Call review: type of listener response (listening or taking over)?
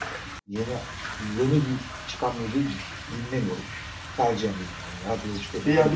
taking over